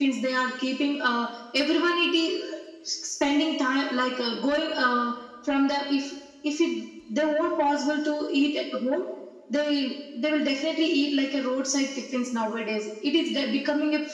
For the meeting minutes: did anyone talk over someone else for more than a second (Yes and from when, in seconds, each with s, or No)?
No